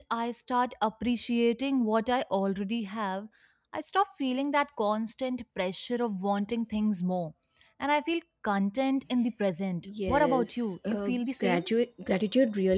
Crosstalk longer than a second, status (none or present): present